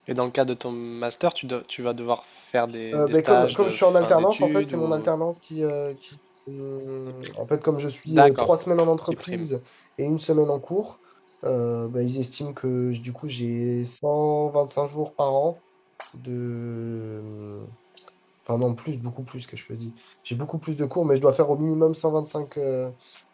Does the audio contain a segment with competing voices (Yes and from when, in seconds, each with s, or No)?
Yes, from 2.9 s